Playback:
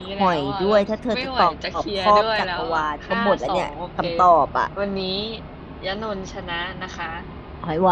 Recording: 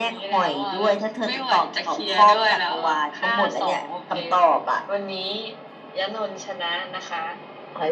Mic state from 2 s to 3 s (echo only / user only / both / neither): echo only